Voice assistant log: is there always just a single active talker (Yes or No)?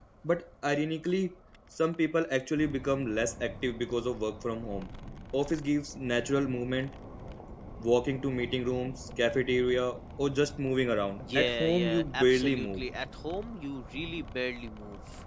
No